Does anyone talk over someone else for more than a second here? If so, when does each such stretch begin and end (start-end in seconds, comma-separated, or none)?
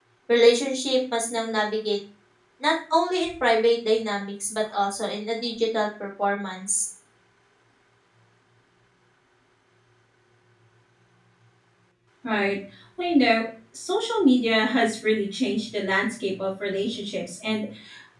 none